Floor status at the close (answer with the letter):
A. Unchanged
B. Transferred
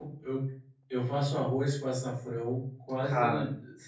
A